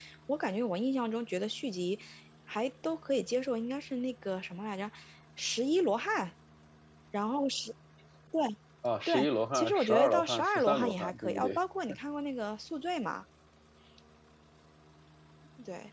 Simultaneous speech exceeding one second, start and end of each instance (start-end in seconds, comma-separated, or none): 9.5-11.6